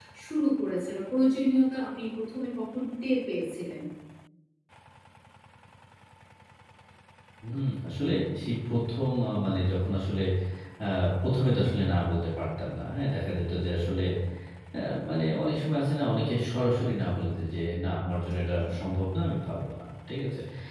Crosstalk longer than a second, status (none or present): none